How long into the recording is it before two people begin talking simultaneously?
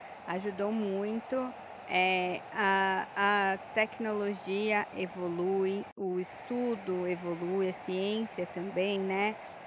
none

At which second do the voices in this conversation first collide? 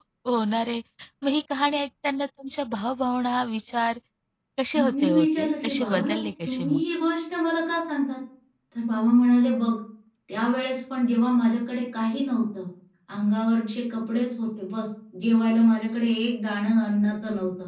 4.7 s

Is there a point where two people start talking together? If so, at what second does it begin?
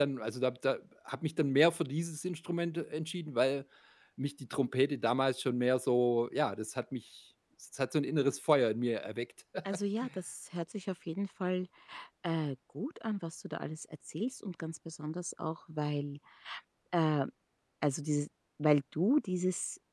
none

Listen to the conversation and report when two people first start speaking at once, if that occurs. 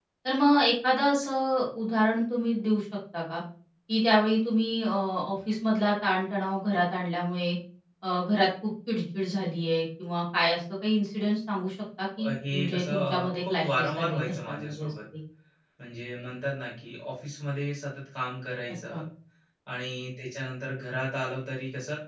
12.2 s

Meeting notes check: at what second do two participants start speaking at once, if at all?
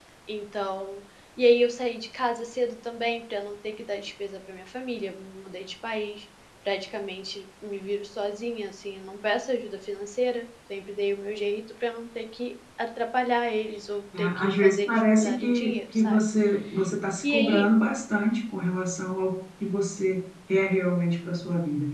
14.2 s

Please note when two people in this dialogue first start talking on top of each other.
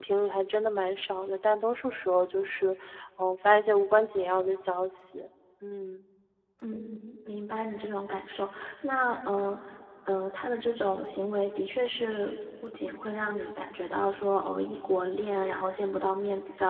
none

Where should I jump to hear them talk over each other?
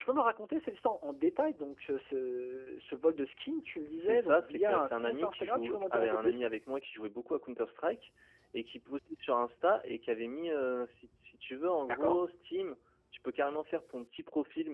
4.0 s

